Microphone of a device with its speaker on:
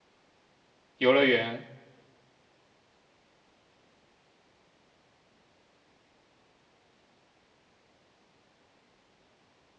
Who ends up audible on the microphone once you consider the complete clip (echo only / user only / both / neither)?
user only